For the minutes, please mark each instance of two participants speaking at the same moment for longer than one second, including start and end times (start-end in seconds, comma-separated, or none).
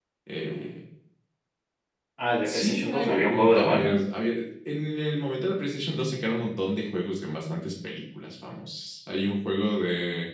2.5-4.0